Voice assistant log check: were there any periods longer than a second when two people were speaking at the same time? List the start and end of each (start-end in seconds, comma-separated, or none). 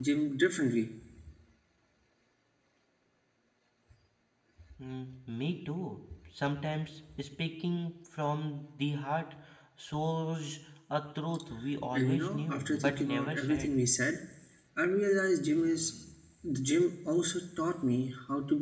11.9-13.7